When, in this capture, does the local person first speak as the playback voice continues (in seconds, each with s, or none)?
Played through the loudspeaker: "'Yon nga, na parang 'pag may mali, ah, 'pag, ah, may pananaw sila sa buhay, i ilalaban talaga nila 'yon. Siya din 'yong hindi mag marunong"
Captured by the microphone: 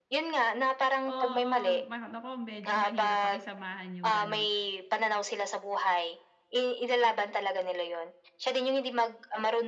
1.1 s